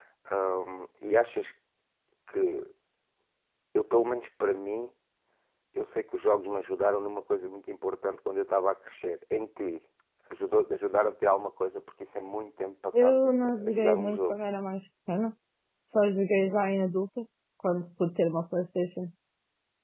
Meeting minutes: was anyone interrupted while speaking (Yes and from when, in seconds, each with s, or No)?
Yes, from 12.9 s